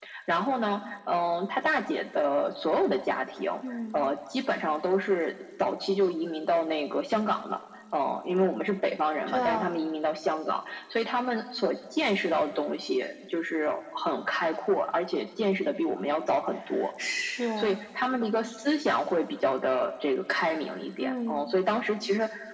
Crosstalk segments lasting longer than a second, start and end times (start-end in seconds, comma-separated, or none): none